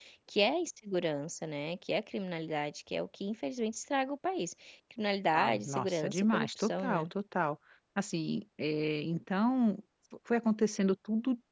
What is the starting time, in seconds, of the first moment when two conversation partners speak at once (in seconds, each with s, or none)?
5.3 s